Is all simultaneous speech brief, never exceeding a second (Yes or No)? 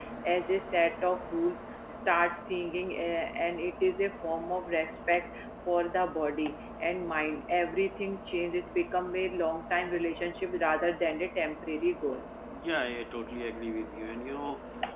Yes